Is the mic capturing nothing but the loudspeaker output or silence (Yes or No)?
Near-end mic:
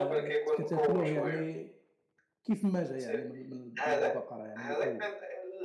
No